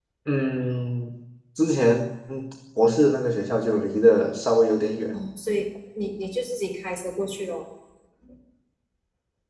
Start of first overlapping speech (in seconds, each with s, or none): none